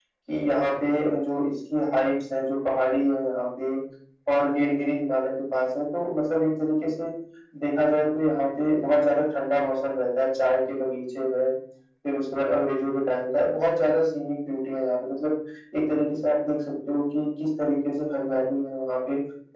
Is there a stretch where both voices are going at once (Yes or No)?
No